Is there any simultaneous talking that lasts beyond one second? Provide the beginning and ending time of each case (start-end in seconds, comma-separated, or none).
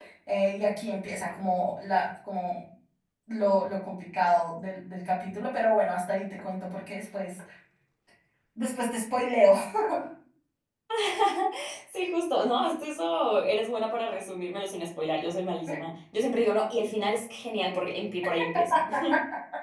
none